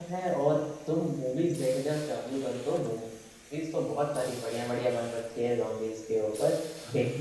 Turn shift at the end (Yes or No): No